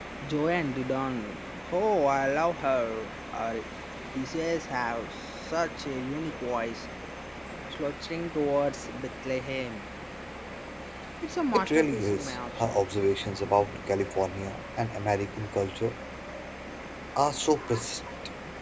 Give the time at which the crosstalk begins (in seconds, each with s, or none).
11.5 s